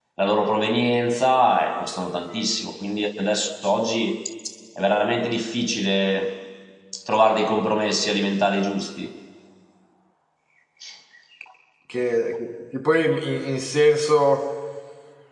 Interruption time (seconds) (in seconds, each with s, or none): none